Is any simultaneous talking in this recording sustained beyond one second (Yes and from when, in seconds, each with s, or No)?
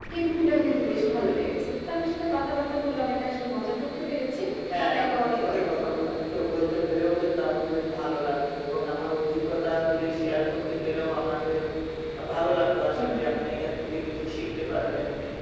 Yes, from 4.8 s